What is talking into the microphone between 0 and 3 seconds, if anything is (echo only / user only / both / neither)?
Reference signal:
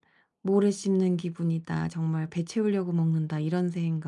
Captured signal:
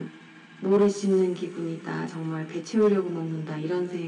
echo only